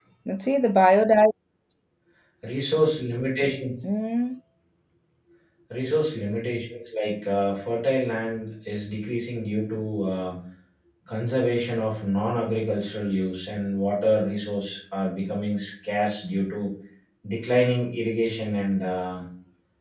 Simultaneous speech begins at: none

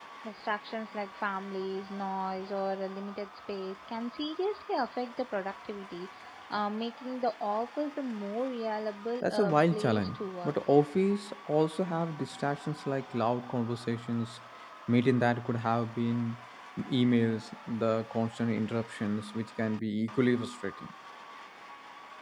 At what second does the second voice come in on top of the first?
9.2 s

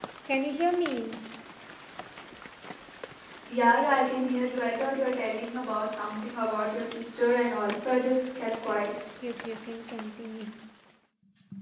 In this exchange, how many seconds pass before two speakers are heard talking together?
none

